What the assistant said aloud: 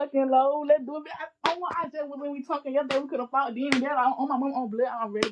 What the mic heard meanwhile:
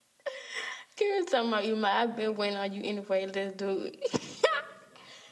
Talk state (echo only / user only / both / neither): user only